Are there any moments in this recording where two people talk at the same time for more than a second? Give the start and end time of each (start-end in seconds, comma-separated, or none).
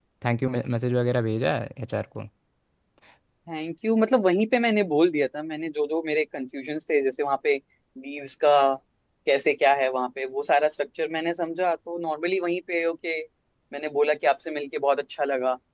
none